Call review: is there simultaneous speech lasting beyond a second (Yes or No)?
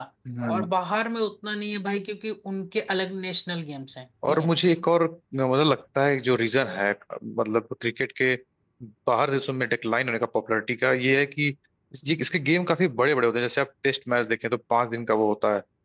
No